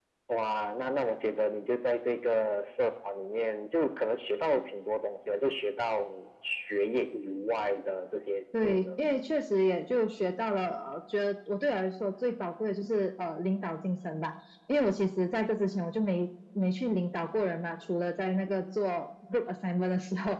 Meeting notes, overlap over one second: none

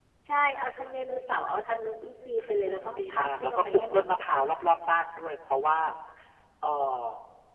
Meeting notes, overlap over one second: present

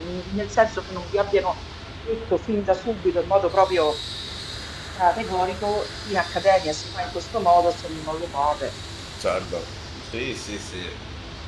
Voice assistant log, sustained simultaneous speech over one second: none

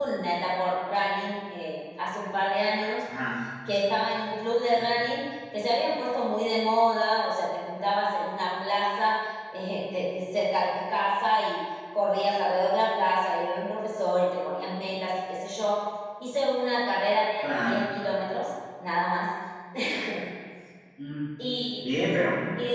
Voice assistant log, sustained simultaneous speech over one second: none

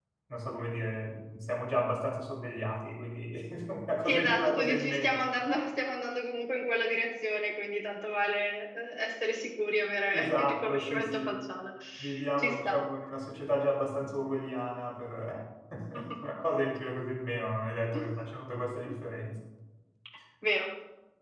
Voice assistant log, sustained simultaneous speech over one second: present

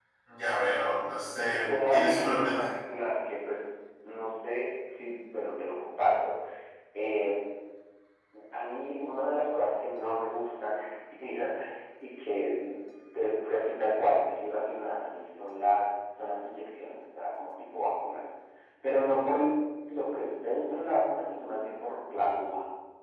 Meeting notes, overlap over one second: present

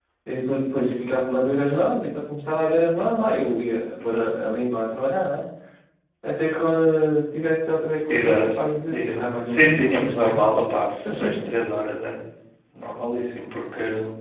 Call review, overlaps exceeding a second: present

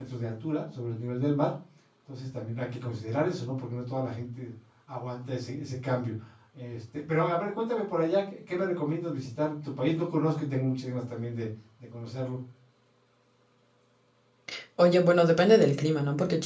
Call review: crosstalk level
none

